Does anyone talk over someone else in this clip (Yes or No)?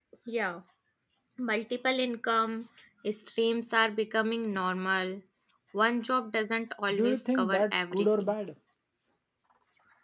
Yes